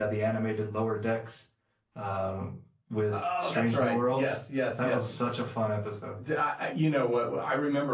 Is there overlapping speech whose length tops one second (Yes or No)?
Yes